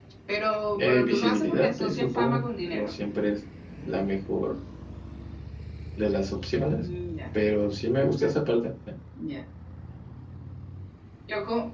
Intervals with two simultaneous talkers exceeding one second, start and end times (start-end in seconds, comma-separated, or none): 0.7-3.0